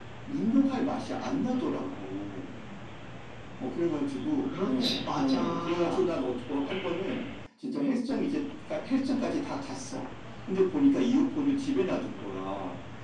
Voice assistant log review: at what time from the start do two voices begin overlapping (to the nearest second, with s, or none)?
5 s